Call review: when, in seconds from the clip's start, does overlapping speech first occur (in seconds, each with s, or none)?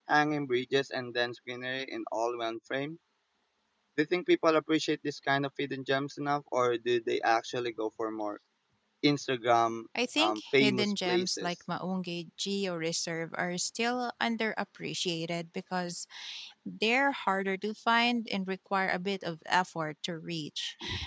9.9 s